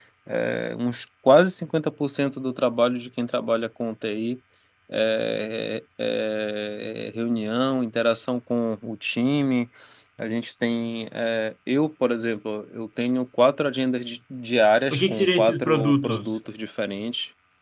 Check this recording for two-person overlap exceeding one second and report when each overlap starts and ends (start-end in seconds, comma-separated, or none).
14.9-16.3